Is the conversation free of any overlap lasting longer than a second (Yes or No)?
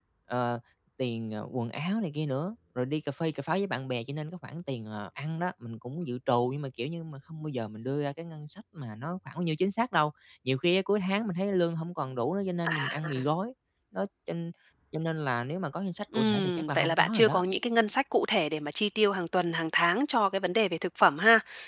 No